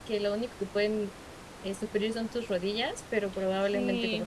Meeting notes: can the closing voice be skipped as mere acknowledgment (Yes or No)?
No